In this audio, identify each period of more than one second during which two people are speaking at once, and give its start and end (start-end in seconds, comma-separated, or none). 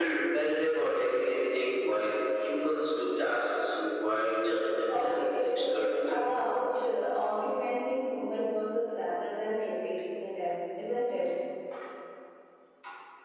5.0-6.2